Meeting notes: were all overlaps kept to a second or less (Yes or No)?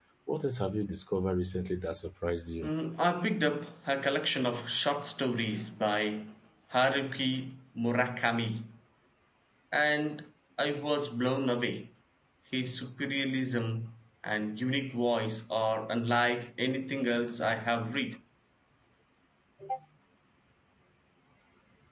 Yes